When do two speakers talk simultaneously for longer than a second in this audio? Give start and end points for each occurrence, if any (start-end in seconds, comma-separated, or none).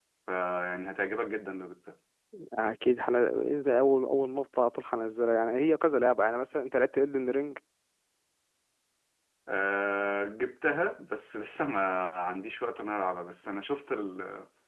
none